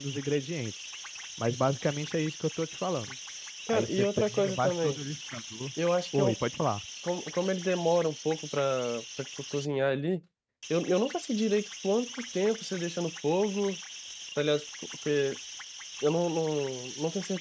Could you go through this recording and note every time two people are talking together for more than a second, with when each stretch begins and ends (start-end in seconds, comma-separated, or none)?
3.7-5.0